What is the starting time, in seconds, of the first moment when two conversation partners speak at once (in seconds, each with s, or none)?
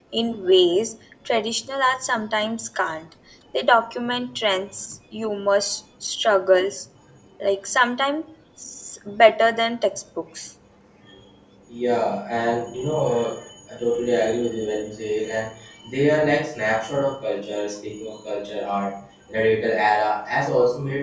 none